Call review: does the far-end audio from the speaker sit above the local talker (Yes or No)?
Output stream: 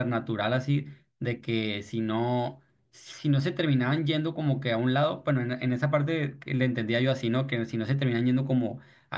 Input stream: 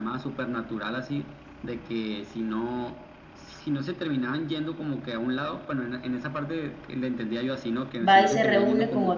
No